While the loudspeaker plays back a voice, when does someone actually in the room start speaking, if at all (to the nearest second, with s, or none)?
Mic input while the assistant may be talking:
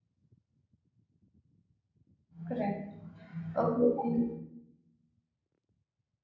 2 s